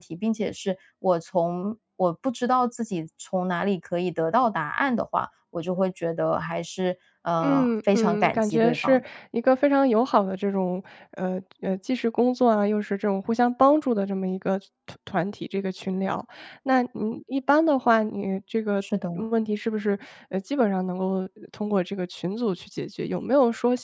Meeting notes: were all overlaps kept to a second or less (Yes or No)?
No